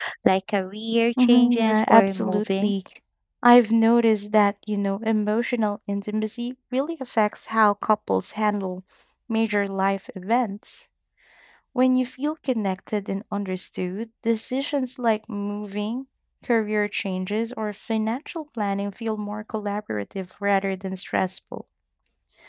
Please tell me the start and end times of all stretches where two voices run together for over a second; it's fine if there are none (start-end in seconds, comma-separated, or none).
1.2-2.7